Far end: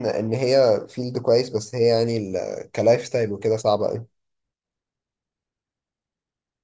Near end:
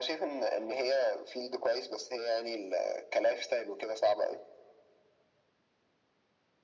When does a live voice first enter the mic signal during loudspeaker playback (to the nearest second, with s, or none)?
none